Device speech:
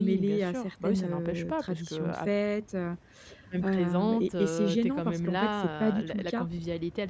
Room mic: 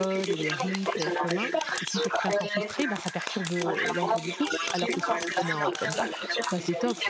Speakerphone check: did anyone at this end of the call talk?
Yes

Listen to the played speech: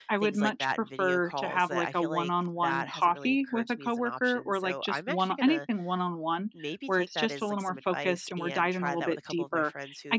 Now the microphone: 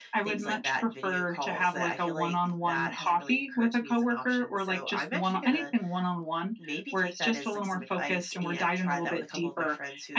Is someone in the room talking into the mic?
No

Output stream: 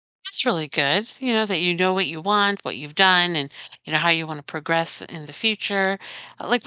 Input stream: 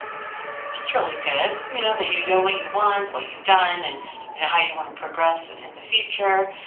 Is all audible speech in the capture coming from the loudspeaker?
Yes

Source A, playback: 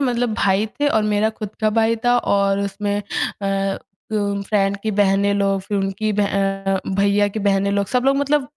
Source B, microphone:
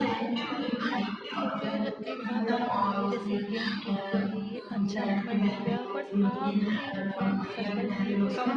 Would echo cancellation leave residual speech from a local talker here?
Yes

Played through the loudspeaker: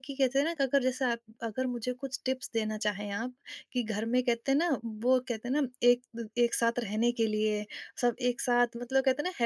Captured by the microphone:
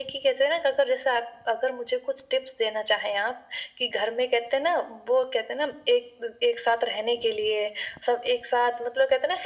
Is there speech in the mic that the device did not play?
No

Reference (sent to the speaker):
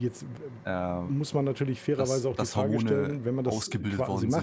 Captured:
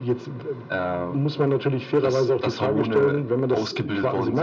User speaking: No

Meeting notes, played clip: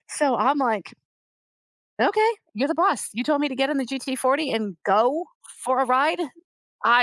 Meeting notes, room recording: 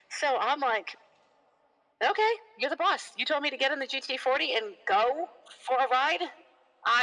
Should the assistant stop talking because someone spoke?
No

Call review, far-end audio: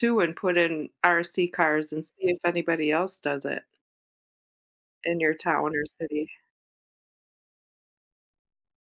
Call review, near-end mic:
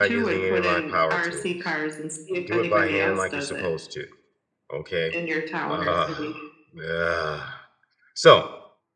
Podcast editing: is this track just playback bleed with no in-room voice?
No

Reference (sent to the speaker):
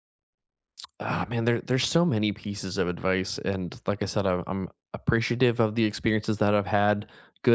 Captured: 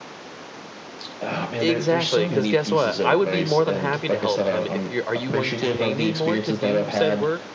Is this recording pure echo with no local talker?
No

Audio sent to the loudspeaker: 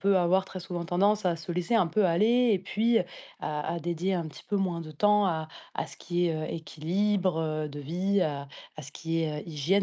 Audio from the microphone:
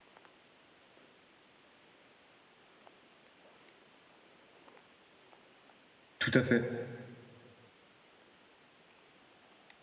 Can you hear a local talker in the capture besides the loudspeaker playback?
Yes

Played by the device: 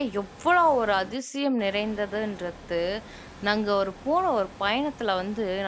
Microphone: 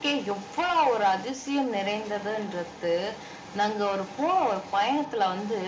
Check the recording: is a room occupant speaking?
No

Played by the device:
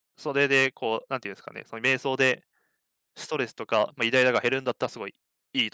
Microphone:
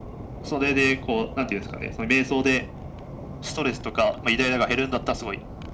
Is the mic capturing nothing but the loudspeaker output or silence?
Yes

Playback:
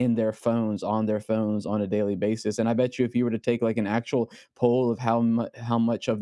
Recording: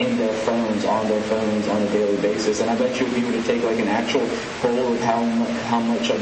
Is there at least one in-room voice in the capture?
No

